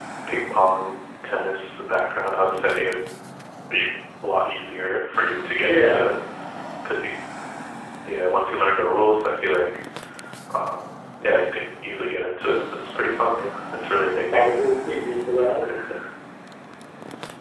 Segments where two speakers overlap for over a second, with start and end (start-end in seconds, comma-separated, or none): none